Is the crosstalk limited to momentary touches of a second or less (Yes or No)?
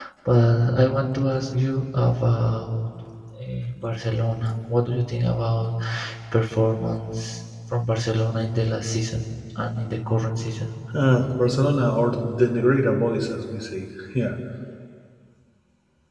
Yes